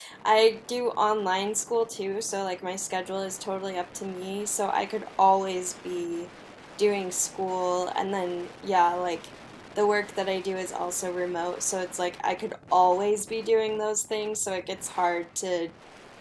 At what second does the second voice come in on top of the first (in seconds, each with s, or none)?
none